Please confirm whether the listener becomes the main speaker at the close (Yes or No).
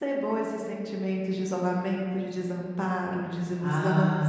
Yes